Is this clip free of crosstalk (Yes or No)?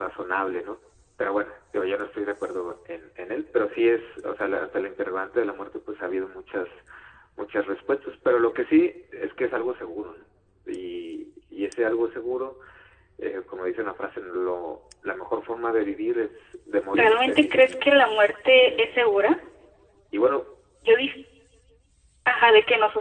No